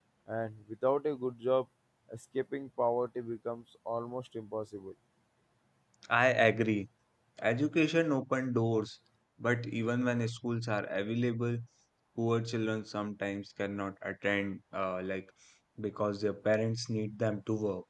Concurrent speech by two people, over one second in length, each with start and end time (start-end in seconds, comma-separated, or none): none